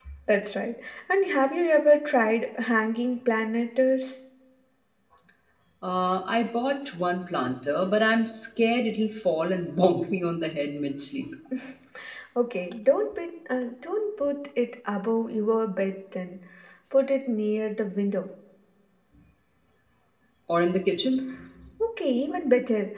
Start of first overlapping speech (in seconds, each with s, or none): none